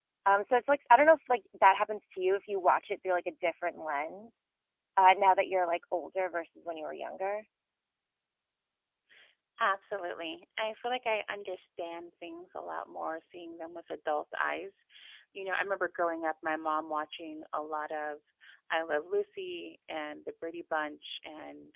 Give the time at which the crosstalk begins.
none

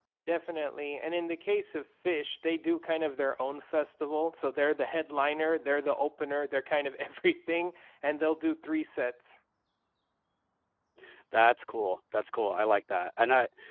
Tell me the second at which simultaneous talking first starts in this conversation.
none

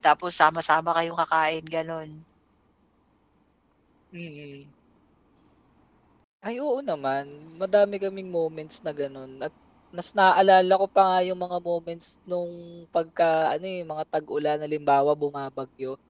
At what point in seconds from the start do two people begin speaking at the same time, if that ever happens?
none

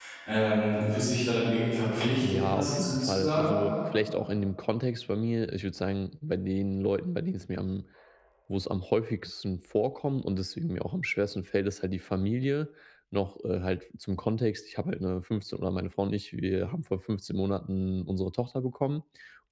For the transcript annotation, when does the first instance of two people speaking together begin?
2.2 s

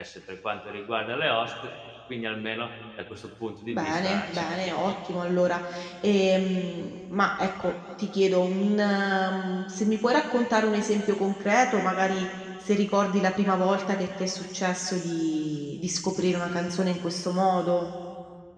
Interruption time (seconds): 3.7 s

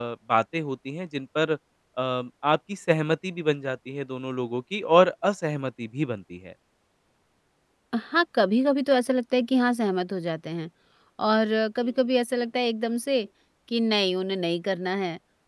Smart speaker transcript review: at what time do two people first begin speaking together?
none

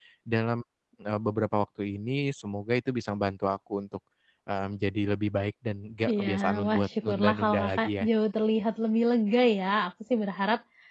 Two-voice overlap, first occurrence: 6.1 s

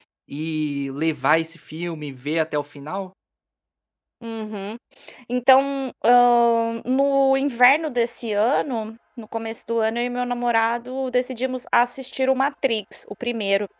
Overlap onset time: none

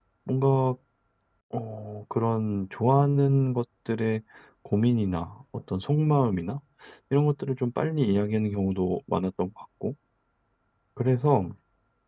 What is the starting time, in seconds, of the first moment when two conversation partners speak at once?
none

